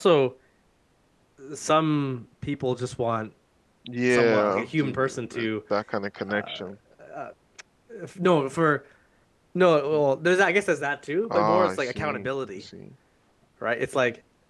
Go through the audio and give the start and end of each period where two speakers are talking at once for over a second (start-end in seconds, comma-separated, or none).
4.1-5.5, 11.3-12.6